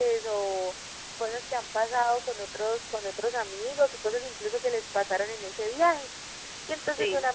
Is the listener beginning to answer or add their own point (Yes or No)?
No